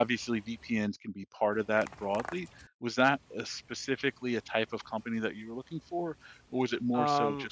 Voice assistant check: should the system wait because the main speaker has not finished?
No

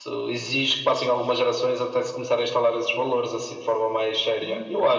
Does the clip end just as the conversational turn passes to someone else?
Yes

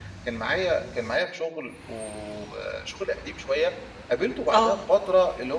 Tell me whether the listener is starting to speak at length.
No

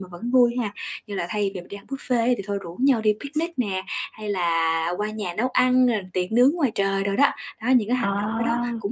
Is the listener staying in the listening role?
Yes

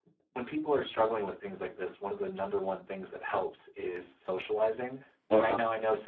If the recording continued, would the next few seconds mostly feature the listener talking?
No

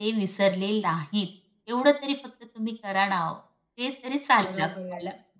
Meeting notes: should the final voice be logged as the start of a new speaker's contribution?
Yes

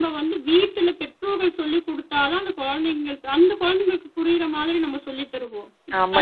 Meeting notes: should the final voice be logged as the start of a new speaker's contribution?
Yes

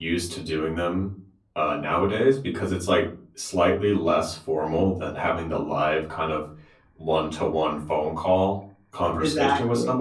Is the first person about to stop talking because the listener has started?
No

